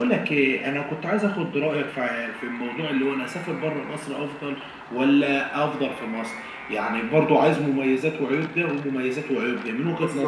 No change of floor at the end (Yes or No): No